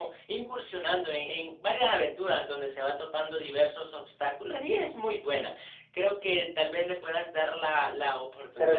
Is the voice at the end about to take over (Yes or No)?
Yes